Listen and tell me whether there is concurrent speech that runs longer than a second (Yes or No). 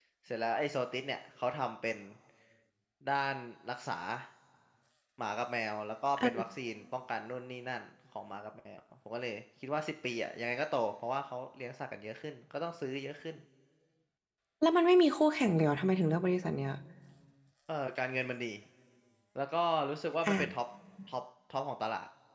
No